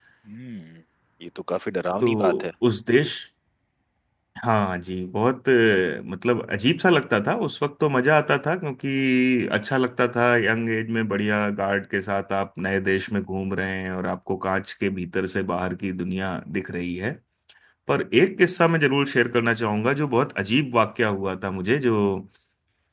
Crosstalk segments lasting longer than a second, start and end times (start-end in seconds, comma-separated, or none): none